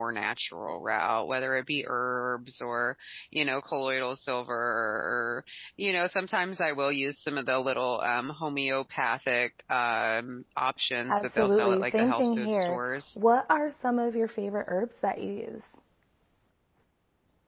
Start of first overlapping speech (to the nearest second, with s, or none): 11 s